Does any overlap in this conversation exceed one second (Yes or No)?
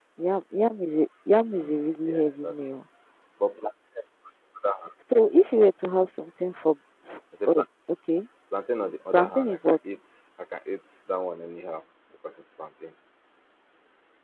Yes